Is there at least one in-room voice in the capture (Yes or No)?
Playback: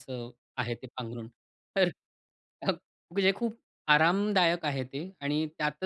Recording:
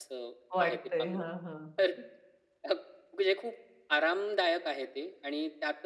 Yes